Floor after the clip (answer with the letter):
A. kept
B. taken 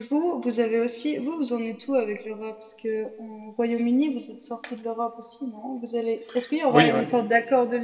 A